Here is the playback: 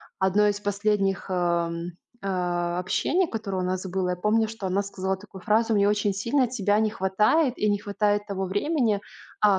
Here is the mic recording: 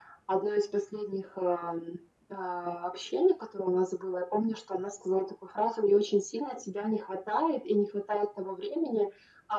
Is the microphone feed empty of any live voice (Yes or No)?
Yes